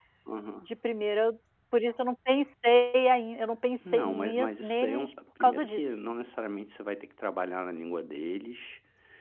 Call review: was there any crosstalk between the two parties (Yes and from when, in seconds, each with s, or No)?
Yes, from 3.8 s